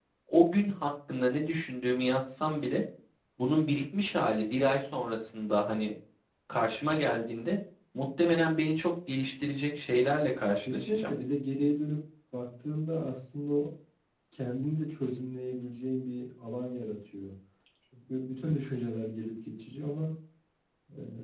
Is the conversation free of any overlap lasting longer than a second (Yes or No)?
Yes